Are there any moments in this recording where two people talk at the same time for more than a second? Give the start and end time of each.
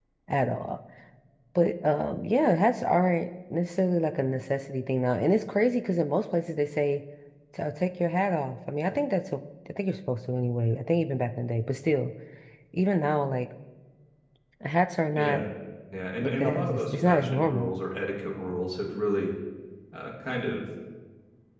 16.2-17.8

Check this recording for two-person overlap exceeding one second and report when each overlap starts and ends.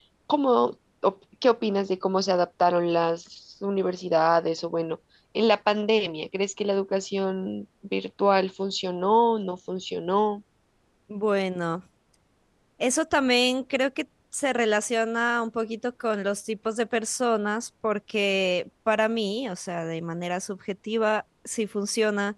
none

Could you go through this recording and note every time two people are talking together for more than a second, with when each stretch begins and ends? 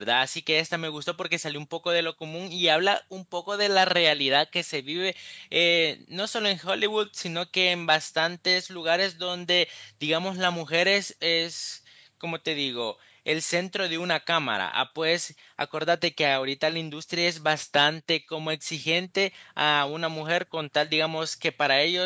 none

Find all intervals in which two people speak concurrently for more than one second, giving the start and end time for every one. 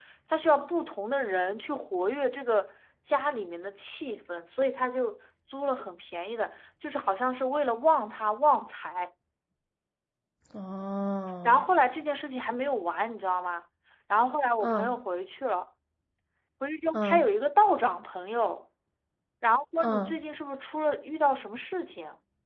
none

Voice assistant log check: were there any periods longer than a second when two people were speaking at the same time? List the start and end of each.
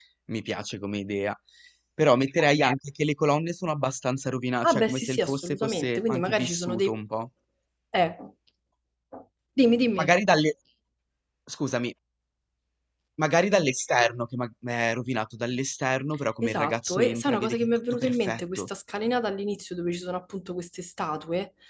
4.6-7.0, 16.4-18.7

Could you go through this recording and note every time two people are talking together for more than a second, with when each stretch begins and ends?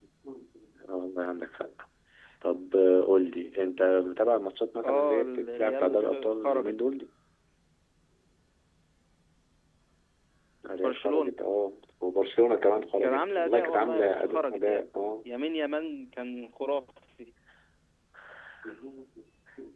4.8-6.8, 13.0-14.8

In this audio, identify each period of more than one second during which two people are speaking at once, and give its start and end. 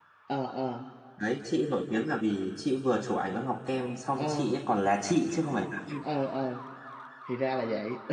none

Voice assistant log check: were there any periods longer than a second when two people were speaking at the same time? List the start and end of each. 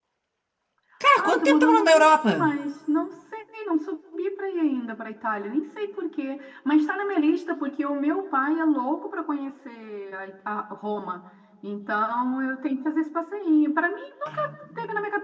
1.2-2.5

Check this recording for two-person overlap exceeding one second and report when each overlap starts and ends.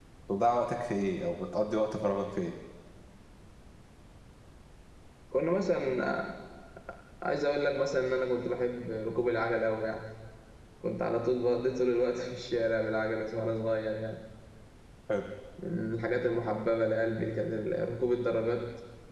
none

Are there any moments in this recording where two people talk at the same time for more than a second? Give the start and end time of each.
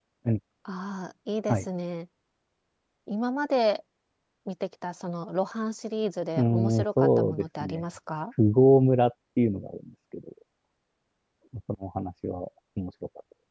6.4-7.8

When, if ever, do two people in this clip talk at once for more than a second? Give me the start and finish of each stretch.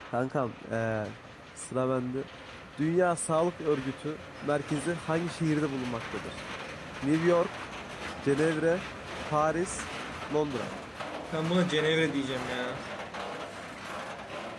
none

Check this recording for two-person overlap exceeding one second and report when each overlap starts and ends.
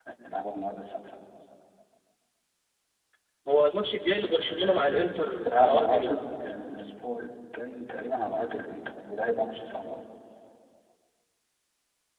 4.2-6.2

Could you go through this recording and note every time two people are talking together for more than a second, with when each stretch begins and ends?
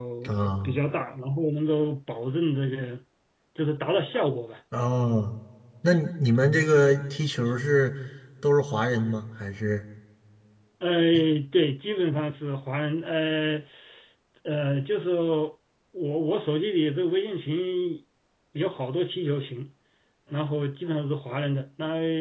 none

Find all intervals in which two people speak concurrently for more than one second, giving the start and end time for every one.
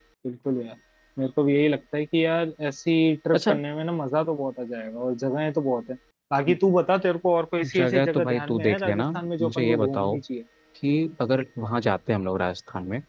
7.7-10.2

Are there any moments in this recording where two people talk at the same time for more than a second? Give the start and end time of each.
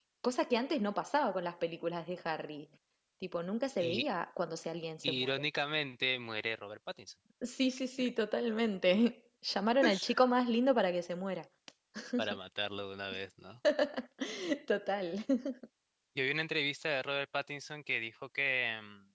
none

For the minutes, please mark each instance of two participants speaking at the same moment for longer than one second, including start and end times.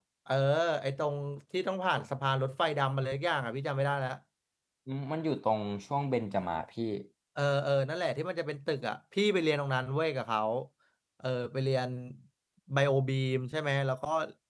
none

